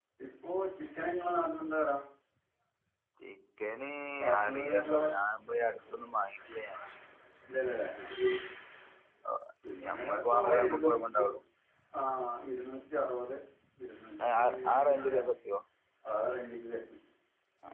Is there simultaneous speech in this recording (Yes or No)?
Yes